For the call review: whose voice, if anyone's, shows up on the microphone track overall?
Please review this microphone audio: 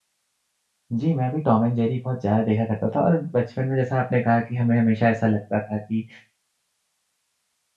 user only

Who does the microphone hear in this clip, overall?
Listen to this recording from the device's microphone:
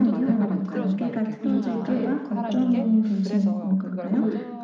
both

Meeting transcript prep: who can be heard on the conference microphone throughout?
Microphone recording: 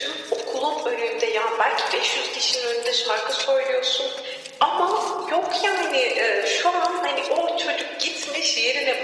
echo only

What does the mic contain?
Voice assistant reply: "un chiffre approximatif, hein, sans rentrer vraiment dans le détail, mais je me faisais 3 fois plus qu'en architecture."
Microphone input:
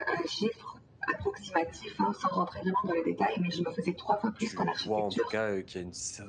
both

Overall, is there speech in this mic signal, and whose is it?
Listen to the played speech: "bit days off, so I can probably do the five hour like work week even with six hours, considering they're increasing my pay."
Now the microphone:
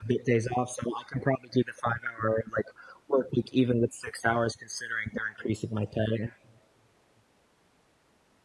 echo only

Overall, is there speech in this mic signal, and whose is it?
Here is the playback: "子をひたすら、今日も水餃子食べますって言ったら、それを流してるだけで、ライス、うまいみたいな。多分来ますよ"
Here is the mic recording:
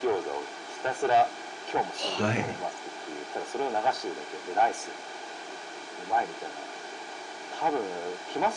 both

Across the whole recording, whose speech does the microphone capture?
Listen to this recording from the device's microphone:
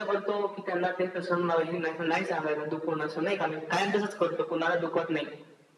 echo only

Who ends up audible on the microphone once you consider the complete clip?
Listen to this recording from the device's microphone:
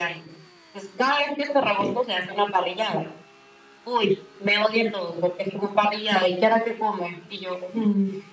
both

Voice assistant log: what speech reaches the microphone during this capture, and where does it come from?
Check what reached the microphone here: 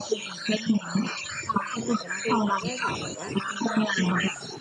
both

